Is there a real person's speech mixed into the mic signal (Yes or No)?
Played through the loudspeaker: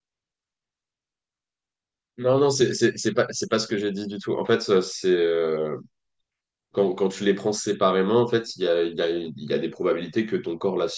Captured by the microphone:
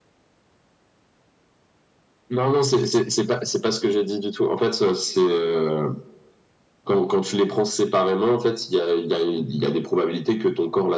No